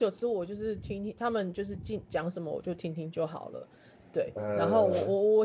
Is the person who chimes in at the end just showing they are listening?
Yes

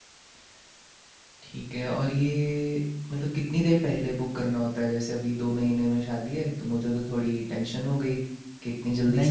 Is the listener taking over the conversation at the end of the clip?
Yes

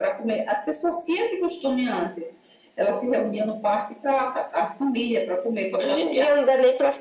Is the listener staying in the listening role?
No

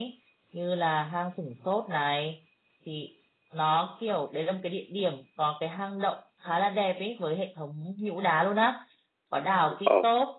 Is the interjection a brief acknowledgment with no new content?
Yes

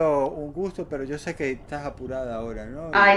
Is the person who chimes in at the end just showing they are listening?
No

